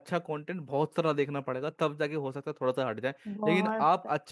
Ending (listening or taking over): listening